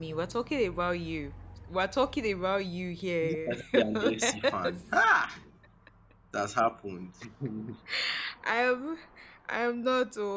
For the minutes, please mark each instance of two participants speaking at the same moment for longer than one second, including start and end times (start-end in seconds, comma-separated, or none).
3.2-4.8